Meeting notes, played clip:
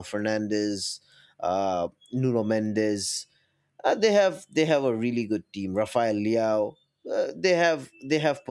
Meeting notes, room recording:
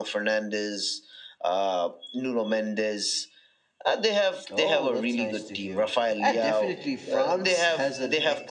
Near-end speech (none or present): present